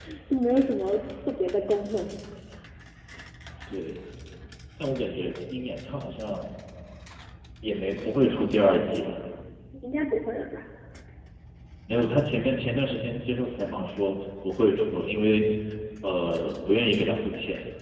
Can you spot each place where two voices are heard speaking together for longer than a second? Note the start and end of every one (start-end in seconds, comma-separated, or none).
none